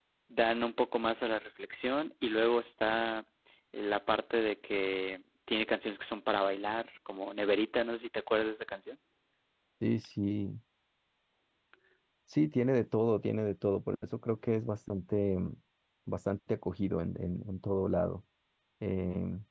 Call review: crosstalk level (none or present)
none